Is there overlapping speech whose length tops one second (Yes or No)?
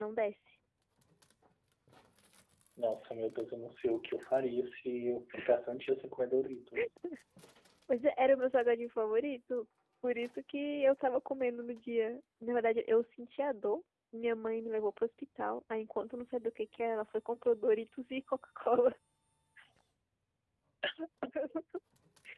No